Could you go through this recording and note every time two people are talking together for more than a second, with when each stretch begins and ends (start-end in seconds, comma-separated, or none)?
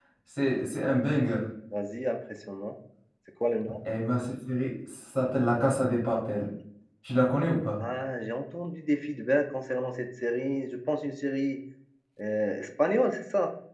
none